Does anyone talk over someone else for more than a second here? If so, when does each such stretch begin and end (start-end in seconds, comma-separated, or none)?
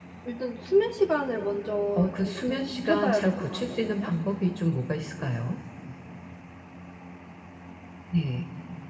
2.0-4.1